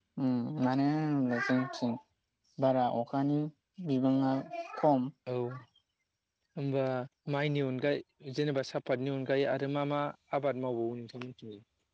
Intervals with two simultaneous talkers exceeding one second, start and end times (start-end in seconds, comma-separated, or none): none